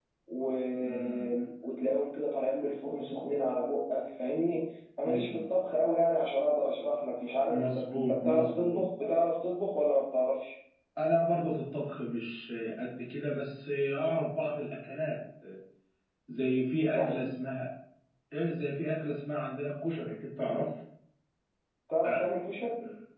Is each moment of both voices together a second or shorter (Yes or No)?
No